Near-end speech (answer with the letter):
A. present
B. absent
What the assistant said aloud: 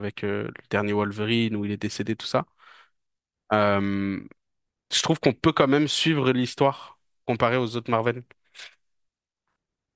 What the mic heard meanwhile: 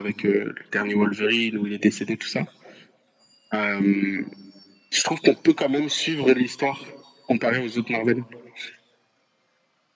B